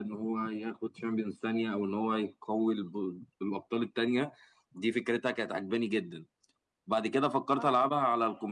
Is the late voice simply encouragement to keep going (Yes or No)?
Yes